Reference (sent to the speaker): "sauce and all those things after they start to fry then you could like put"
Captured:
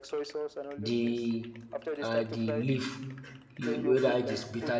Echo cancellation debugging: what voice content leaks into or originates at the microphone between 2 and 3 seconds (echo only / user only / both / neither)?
both